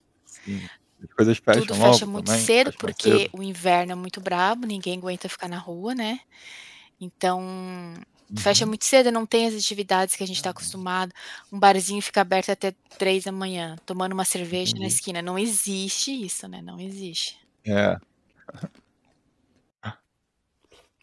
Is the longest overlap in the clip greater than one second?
Yes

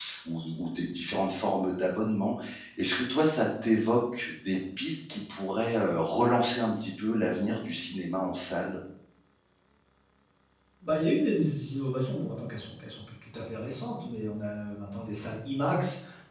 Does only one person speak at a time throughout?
Yes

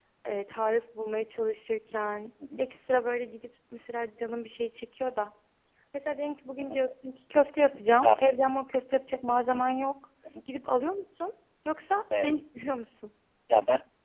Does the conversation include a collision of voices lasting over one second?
No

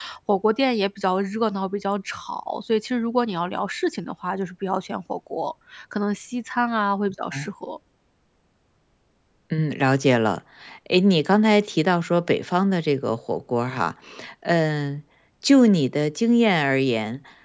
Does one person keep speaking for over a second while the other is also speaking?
No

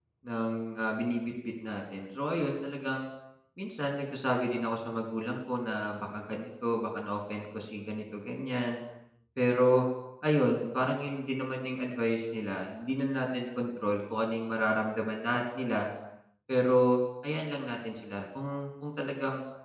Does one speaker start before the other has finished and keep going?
No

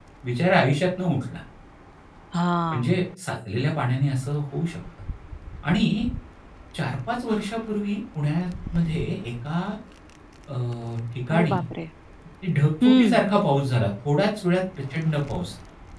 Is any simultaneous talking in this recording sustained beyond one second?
No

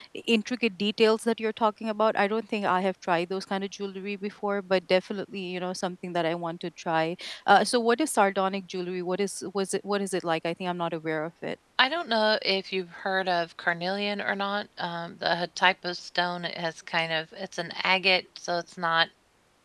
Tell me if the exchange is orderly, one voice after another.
Yes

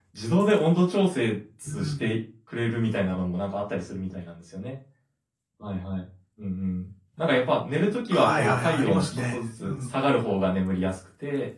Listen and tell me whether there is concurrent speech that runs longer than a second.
Yes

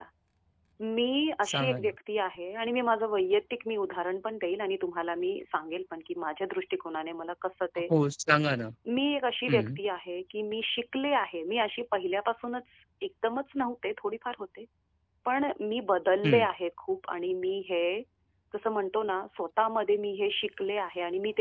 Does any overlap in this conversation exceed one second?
No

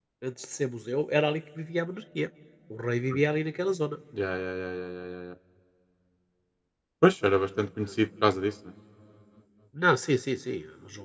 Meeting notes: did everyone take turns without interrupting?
Yes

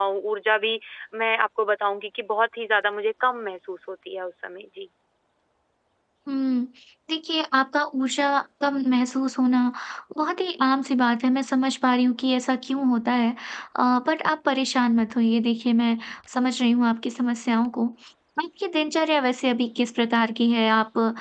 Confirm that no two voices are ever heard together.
Yes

